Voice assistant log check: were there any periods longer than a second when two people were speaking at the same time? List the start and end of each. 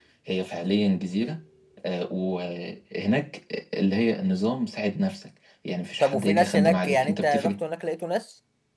6.0-7.5

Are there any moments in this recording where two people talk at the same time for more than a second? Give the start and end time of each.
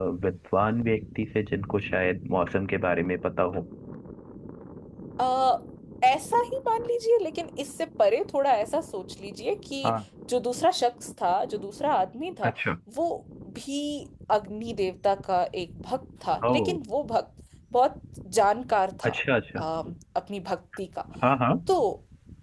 none

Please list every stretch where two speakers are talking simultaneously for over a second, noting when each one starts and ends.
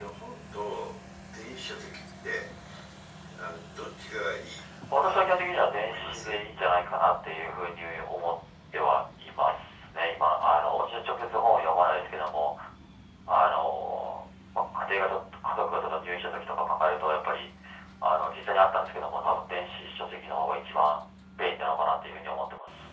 4.9-6.4

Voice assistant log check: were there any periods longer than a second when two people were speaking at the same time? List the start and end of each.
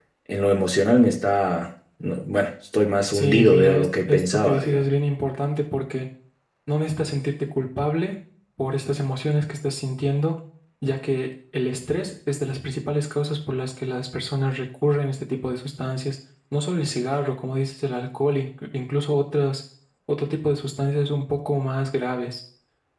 3.1-4.8

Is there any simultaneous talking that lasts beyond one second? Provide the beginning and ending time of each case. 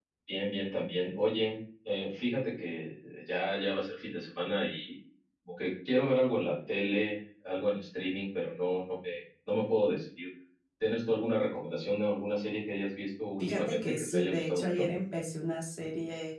13.4-14.9

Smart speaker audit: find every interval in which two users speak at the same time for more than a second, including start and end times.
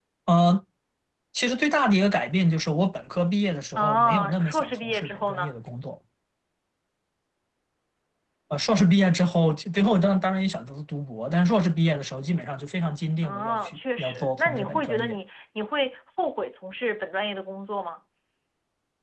3.8-5.5, 13.2-15.2

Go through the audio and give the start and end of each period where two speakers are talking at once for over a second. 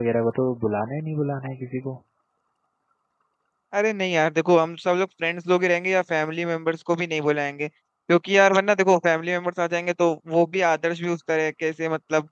none

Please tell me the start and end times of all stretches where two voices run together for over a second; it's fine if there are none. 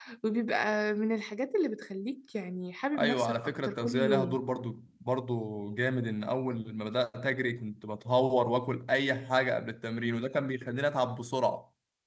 3.0-4.4

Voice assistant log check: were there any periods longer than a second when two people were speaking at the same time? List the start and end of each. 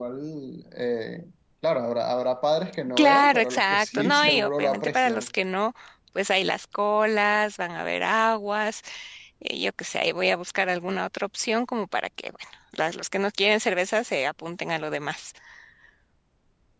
3.0-5.3

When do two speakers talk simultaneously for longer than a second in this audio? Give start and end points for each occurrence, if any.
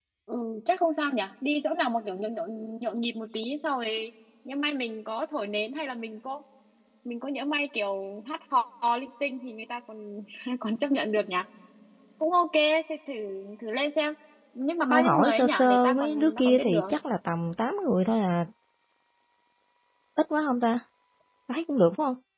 14.8-16.9

